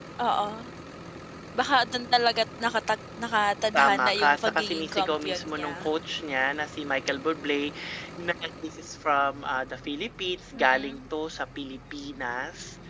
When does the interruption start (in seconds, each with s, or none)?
3.8 s